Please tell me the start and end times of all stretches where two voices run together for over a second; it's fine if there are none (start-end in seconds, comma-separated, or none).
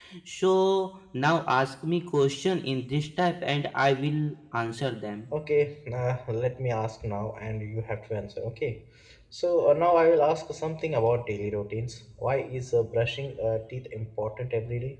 none